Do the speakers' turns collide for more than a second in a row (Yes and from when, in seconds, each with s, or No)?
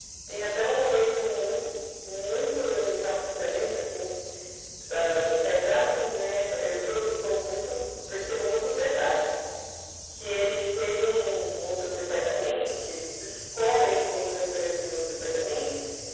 No